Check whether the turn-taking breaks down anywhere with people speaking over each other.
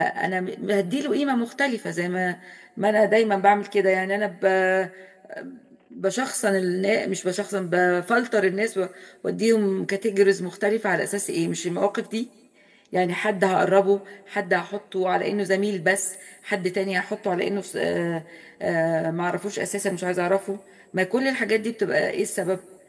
No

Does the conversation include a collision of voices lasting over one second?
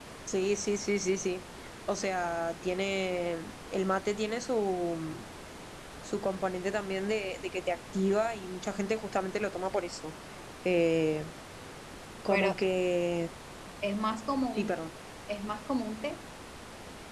No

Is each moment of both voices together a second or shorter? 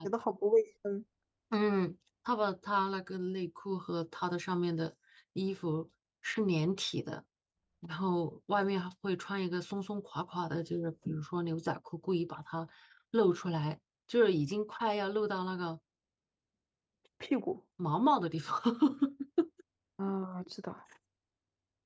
Yes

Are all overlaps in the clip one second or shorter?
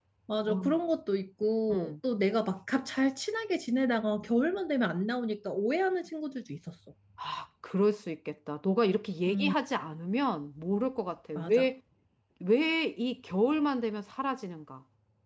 Yes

